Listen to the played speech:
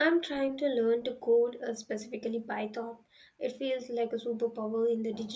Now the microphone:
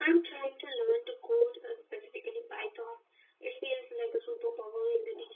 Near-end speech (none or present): none